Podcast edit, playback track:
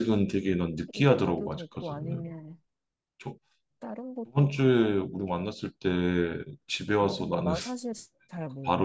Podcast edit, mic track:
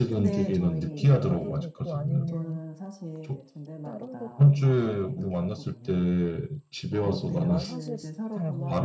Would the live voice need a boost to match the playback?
Yes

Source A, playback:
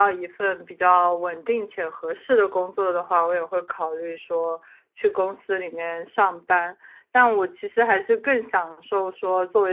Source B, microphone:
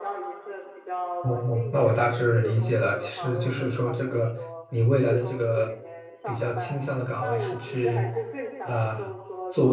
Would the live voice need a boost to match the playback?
No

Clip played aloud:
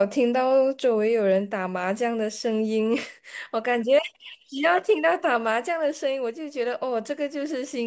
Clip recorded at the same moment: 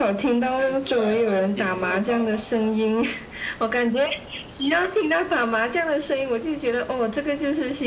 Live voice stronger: No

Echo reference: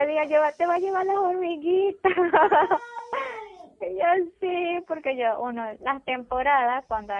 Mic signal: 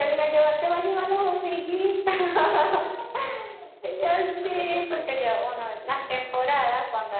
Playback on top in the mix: Yes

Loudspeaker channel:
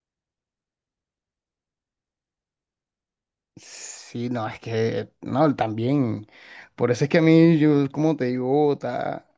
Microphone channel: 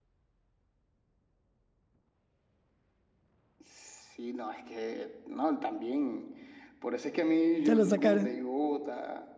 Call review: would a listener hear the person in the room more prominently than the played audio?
Yes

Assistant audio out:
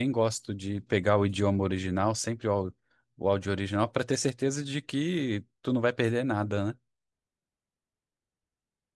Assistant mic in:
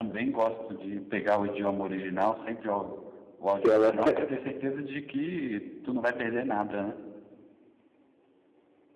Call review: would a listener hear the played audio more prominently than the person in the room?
No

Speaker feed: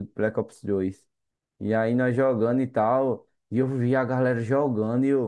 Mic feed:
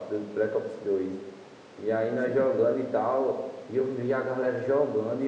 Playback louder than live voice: Yes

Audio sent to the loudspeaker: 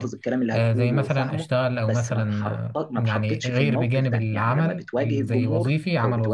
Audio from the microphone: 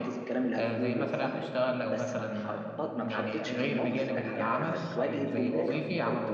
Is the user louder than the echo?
No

